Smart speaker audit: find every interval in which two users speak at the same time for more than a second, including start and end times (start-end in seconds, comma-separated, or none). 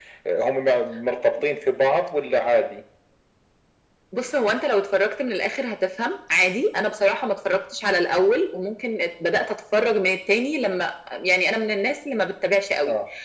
none